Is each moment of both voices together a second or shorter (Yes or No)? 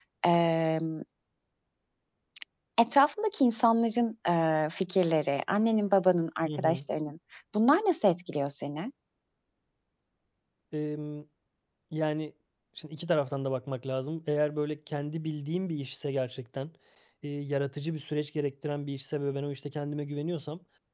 Yes